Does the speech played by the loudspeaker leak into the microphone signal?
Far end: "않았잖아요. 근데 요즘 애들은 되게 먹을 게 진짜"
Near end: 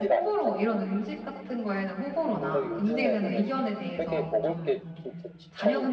Yes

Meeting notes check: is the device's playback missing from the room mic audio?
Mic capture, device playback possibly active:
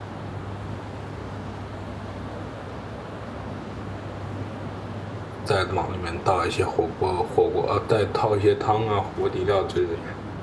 Yes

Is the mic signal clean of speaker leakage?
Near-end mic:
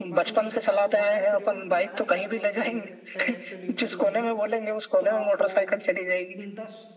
No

